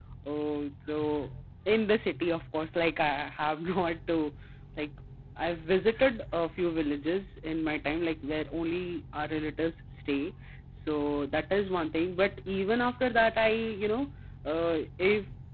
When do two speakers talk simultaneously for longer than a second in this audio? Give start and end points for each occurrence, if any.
none

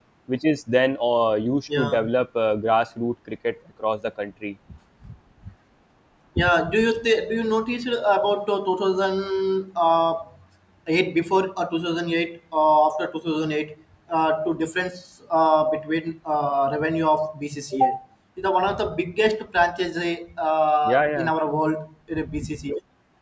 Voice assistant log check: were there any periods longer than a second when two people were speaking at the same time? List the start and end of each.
none

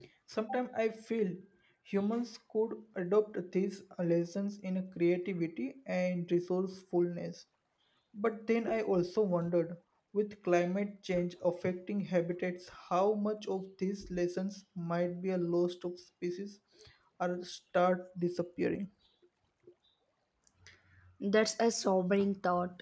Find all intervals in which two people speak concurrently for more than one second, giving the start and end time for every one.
none

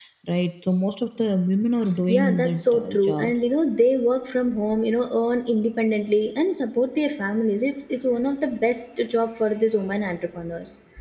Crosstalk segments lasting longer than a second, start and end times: 2.1-3.3

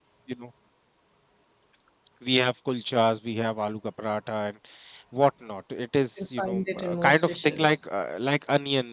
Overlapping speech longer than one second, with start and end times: 6.2-7.8

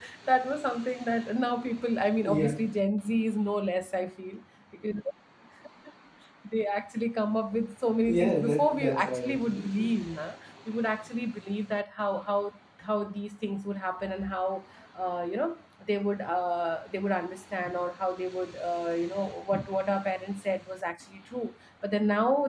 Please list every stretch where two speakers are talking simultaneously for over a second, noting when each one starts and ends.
8.0-9.7

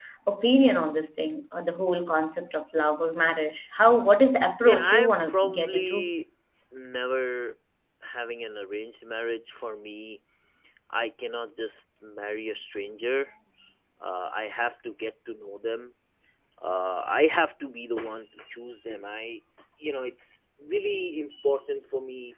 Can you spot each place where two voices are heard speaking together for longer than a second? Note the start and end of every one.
4.6-6.1

